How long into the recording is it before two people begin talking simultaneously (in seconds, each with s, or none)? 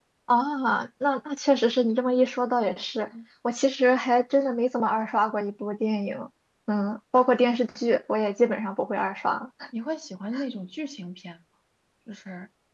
none